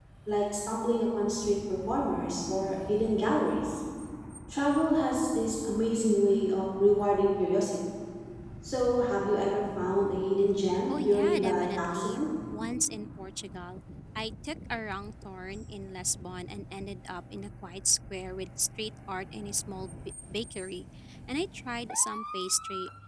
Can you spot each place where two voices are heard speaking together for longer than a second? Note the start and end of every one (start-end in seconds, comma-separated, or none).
10.9-12.2